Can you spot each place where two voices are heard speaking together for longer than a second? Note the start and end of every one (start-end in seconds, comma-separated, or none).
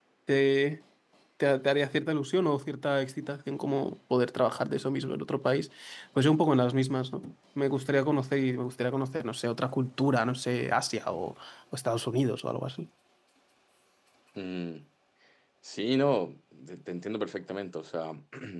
none